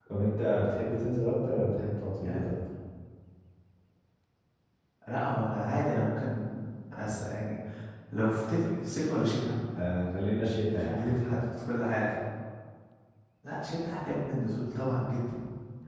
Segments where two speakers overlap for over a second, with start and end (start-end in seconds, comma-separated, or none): none